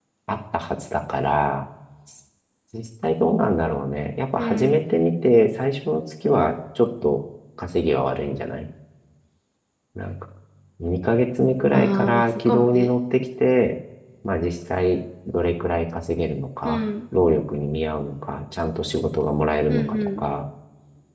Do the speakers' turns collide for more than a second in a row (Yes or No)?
Yes